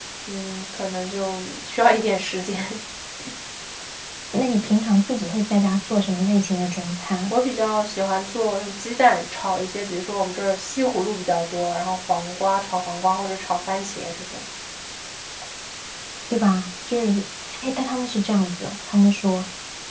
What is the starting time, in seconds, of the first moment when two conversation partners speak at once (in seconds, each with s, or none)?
none